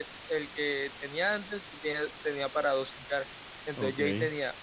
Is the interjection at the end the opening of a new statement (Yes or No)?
No